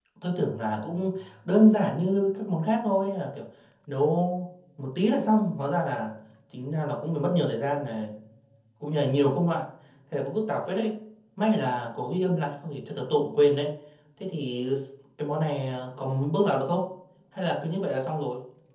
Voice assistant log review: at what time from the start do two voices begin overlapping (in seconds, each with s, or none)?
none